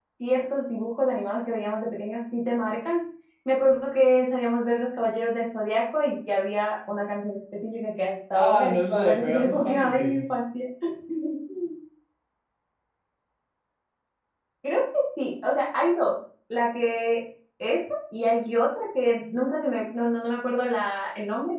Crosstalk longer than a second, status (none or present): present